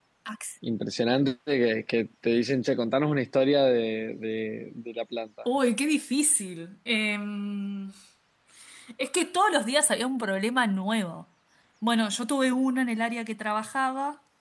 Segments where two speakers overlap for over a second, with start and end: none

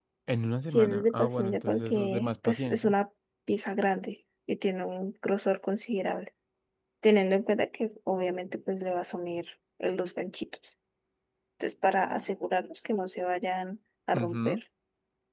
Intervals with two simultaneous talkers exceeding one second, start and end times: 0.7-2.9

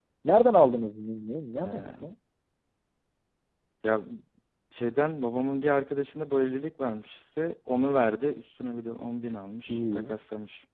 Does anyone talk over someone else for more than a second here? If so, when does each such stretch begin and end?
none

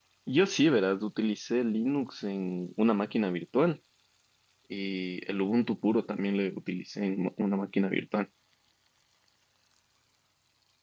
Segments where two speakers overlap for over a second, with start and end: none

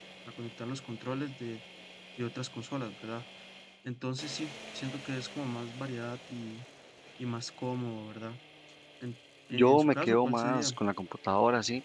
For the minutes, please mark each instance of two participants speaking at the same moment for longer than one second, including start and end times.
9.5-10.7

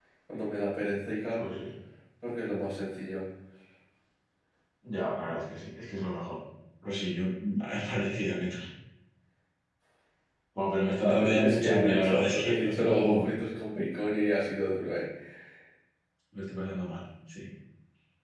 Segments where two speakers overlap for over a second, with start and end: 11.0-13.3

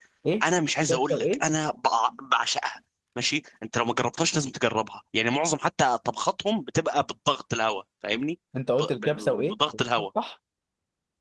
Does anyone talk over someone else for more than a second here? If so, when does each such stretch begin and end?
8.8-10.1

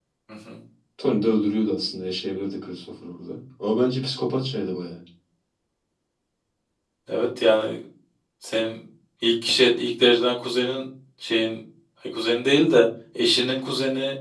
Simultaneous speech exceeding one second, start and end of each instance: none

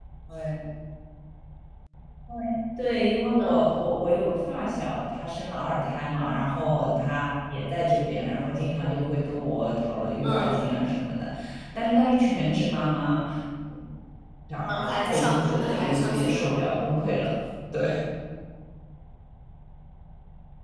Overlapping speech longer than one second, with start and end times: 14.7-16.6

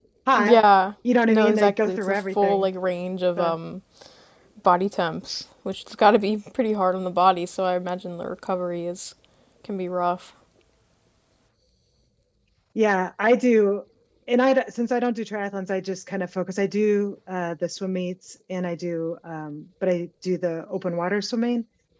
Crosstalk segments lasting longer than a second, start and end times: 1.3-2.7

